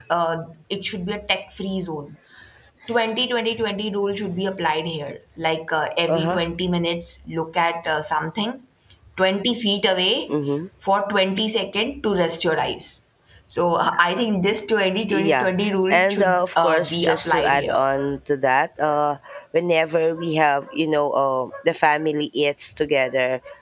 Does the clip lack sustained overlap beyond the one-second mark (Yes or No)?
No